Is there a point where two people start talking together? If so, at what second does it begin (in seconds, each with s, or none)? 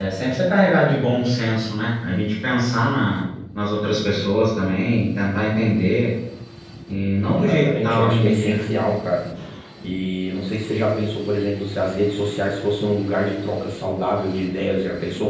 7.3 s